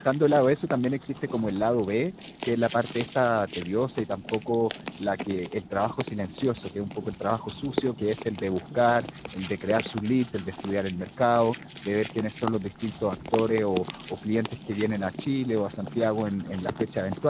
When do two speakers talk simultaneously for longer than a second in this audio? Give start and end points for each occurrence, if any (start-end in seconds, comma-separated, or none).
none